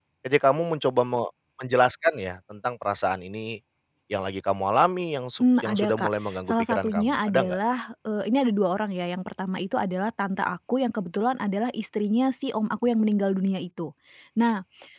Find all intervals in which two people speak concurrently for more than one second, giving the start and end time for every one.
5.4-7.6

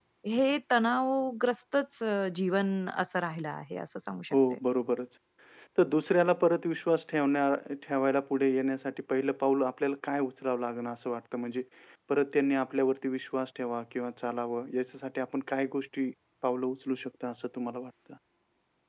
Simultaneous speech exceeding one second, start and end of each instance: none

